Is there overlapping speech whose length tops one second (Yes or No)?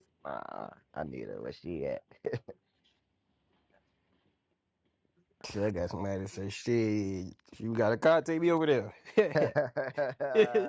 No